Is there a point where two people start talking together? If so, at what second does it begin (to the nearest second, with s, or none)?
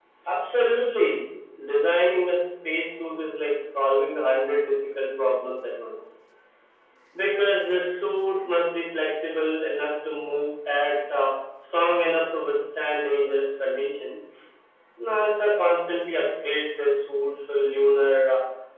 none